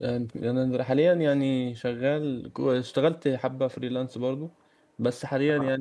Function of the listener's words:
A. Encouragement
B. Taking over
A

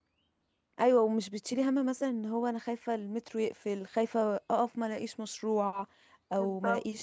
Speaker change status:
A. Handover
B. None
B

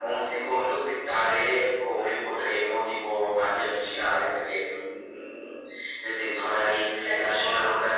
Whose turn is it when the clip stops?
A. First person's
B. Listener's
A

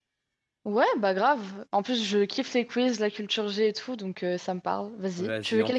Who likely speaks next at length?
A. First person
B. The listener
B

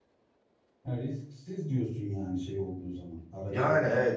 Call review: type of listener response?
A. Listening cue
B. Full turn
B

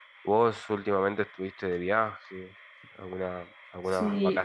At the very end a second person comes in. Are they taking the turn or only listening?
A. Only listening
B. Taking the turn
B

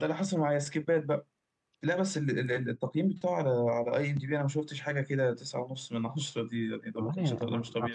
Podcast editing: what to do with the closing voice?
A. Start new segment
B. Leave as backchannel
A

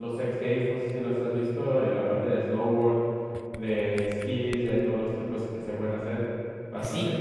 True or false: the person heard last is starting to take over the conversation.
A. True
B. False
A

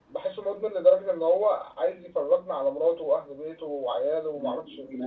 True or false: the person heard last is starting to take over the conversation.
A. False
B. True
B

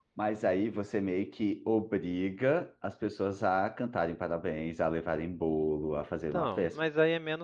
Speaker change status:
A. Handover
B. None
A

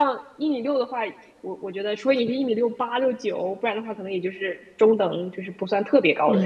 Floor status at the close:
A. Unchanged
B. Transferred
B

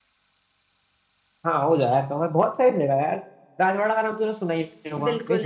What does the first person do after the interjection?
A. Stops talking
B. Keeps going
A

